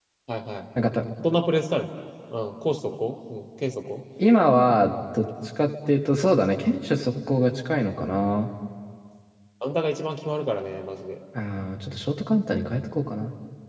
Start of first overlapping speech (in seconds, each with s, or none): none